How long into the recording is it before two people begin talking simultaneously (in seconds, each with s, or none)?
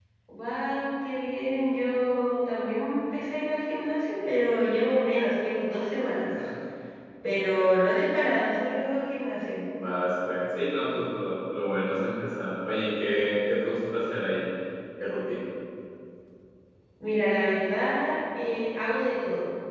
none